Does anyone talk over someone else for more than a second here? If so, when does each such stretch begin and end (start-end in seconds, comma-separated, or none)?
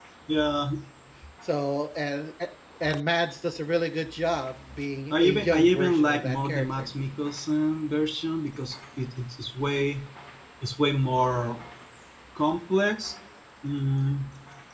5.1-6.9